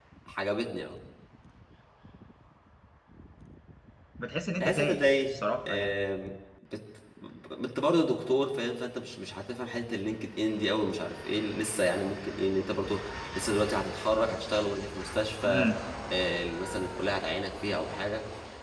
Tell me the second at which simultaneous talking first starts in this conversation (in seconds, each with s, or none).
4.6 s